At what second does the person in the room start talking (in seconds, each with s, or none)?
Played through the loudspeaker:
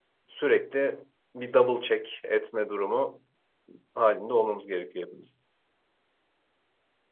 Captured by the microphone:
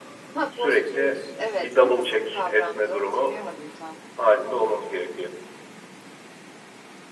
0.4 s